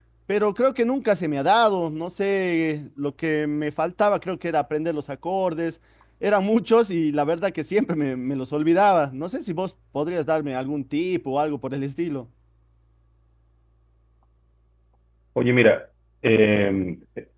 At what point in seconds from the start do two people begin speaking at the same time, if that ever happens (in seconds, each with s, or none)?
none